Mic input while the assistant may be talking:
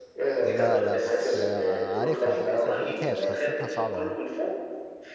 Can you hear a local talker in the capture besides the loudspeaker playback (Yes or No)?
Yes